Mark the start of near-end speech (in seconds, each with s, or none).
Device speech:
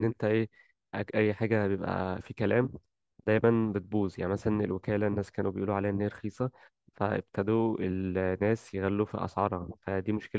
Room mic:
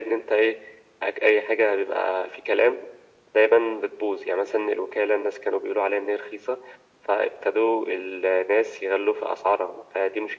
none